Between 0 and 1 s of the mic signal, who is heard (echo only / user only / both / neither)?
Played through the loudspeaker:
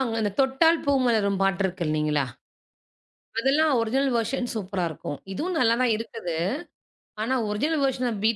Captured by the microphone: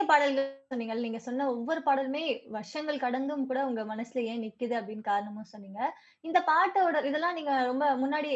user only